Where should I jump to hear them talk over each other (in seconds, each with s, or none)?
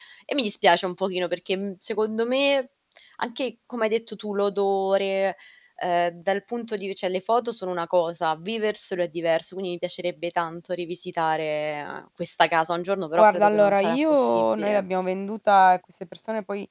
13.2 s